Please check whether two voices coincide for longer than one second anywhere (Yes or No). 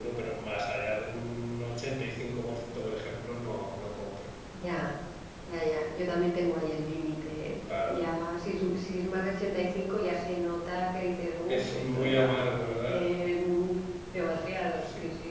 Yes